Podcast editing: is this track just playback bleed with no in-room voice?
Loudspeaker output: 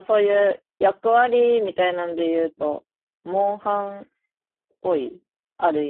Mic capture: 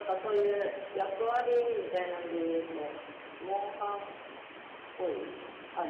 Yes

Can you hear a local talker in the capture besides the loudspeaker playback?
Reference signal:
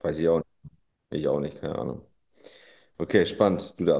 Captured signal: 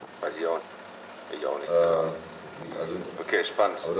Yes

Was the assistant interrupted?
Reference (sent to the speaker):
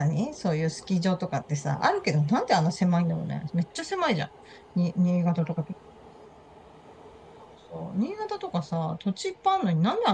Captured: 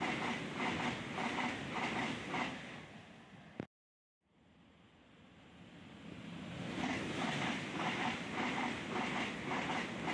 No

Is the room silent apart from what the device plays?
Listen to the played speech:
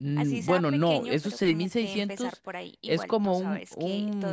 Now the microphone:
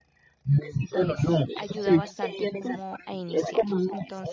No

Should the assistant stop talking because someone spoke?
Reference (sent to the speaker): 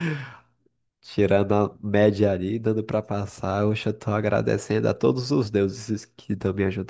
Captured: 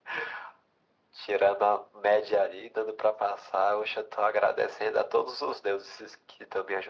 No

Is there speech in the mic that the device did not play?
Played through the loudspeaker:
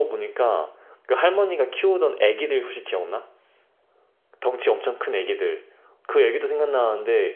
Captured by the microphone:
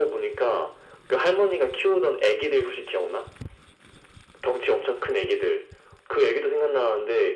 No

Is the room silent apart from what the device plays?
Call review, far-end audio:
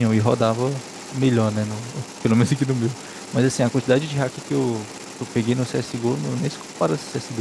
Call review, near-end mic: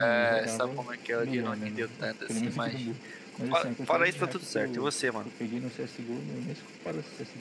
No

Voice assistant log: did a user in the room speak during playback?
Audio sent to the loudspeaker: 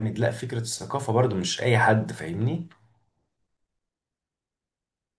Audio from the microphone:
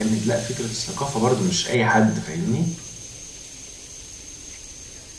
No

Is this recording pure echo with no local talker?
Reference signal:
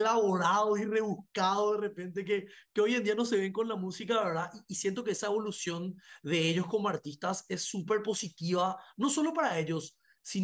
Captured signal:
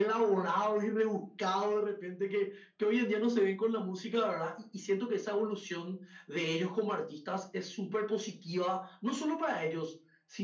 Yes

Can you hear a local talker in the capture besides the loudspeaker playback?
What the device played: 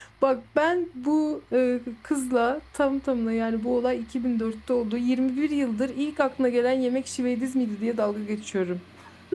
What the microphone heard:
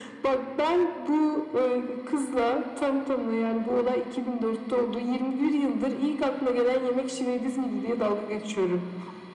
No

